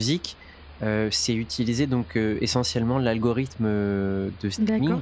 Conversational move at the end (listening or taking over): taking over